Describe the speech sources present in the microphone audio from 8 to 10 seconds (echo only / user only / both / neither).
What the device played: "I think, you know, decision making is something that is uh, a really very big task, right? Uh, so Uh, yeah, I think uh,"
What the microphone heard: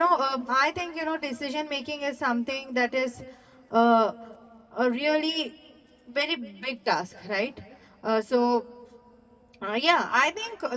echo only